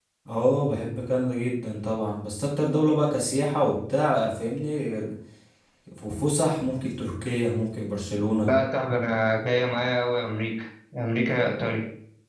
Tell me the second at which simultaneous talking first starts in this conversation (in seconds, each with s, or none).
none